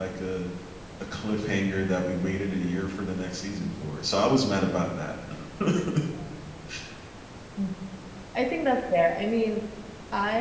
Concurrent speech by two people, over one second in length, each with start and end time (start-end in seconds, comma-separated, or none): none